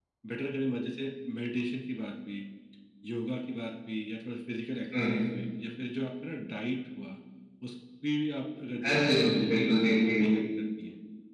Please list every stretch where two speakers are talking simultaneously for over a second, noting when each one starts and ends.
8.9-10.3

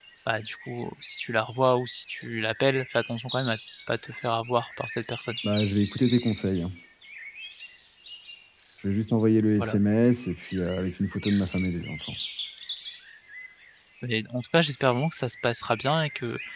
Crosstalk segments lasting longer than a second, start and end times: none

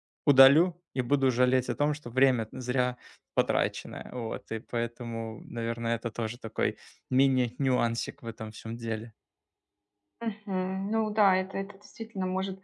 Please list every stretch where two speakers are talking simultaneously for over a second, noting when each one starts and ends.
none

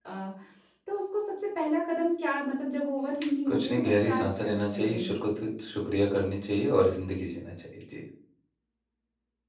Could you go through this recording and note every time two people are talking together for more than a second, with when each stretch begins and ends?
3.5-5.1

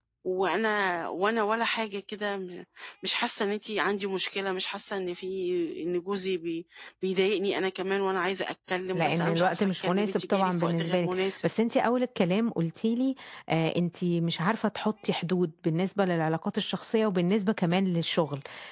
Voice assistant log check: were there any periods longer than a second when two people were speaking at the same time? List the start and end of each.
8.9-11.5

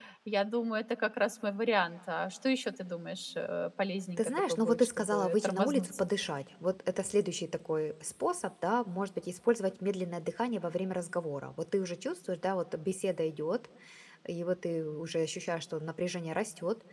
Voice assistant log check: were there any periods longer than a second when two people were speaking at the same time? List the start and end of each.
4.2-6.0

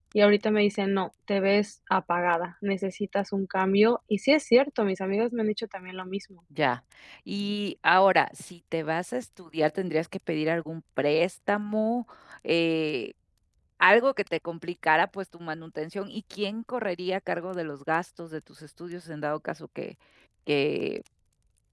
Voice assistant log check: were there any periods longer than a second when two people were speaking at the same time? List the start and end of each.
none

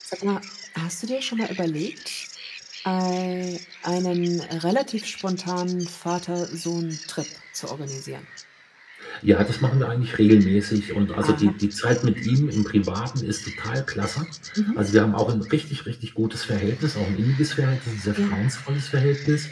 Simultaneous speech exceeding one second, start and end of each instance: none

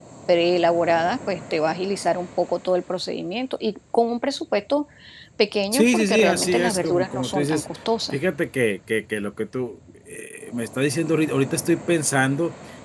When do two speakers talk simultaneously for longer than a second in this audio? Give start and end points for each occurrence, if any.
5.7-7.6

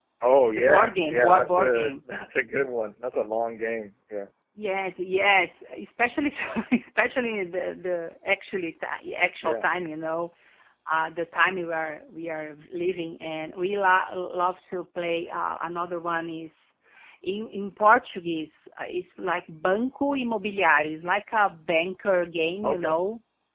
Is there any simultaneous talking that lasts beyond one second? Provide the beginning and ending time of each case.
0.5-1.9

